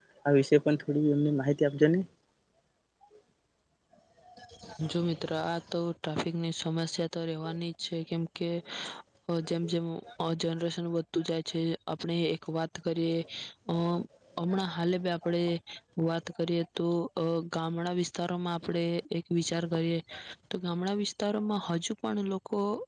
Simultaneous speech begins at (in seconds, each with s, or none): none